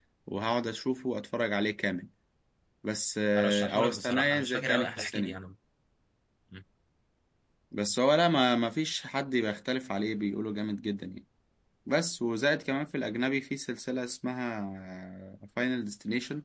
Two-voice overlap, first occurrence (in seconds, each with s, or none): 3.4 s